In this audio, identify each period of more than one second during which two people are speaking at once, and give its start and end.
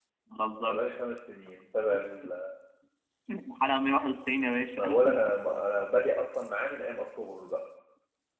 none

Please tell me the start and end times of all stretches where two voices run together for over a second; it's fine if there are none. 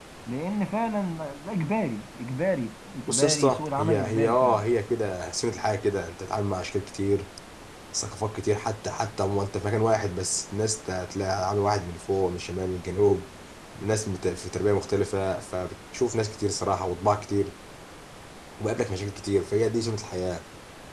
3.1-4.6

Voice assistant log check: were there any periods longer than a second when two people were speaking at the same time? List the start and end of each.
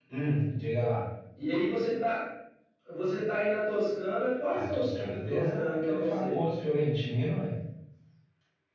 4.5-6.4

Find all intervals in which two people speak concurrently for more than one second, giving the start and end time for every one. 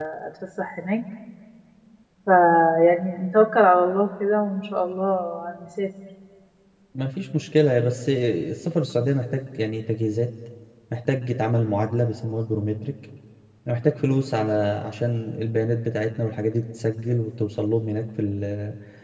none

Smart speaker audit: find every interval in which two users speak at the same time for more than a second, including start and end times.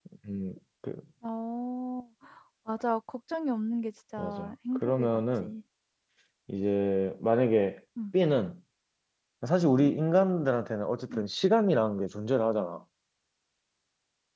4.2-5.5

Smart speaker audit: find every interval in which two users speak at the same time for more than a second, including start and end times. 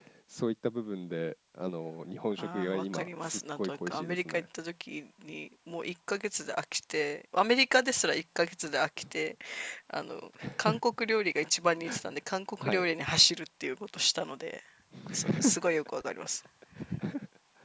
2.4-4.4

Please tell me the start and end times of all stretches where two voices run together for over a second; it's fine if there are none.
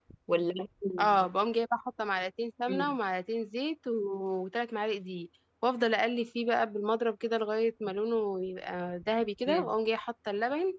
none

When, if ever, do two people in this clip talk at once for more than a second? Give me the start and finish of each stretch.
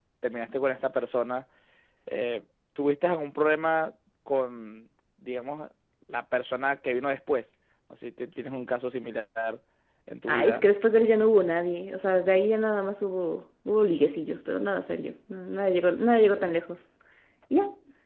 none

